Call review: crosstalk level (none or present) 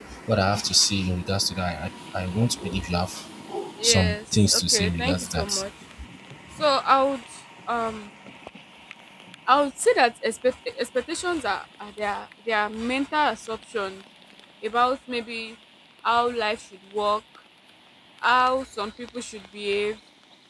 present